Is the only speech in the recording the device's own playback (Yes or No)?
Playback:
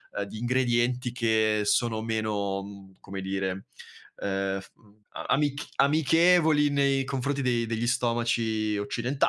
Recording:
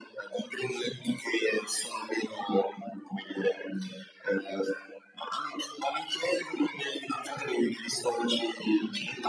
Yes